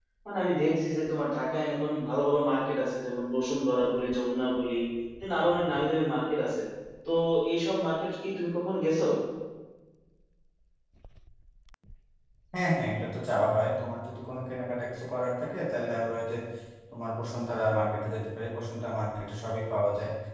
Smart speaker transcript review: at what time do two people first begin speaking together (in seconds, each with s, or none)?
none